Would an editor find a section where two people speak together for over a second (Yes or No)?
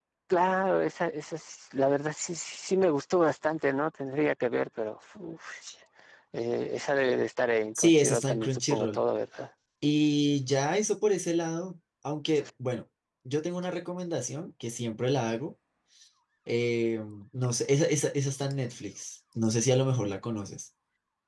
Yes